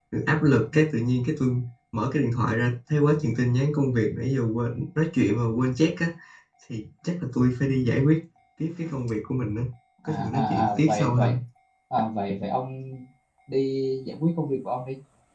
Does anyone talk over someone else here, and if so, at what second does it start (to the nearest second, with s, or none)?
10 s